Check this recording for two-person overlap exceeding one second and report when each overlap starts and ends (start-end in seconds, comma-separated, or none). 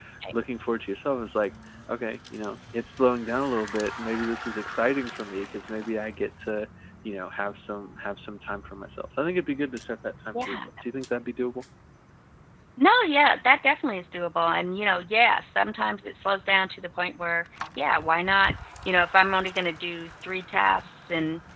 none